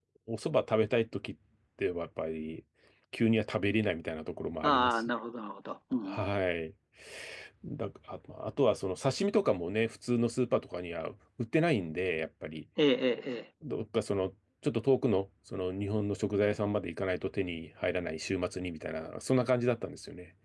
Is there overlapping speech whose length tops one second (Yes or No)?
No